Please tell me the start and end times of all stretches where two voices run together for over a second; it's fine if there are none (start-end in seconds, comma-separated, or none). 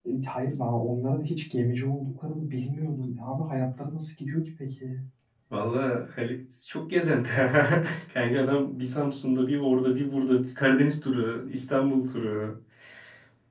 none